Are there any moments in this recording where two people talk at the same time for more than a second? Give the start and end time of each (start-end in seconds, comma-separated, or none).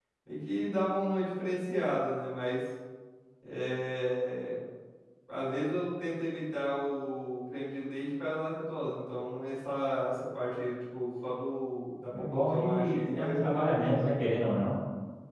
12.3-14.3